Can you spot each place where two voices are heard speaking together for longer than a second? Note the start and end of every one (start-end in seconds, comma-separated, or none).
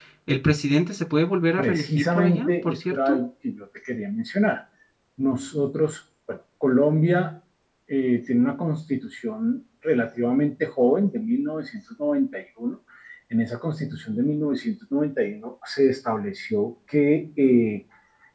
1.6-3.2